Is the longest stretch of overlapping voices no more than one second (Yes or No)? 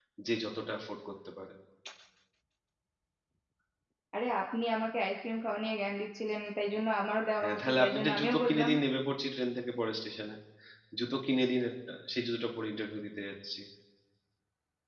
No